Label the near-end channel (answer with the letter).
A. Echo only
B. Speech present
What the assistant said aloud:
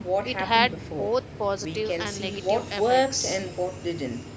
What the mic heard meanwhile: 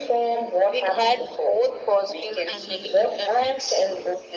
A